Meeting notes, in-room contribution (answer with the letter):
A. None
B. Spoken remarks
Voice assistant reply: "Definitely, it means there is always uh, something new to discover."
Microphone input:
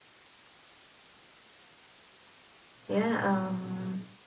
B